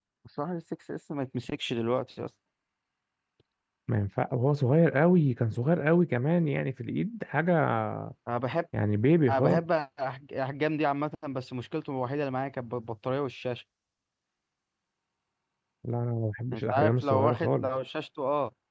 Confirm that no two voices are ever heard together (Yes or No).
No